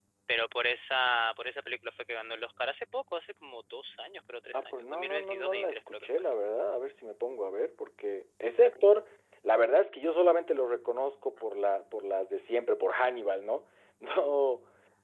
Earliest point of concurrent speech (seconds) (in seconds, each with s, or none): 4.5 s